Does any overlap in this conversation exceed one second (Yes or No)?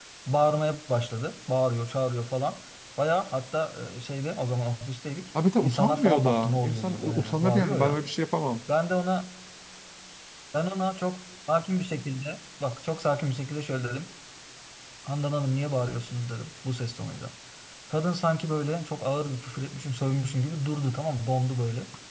Yes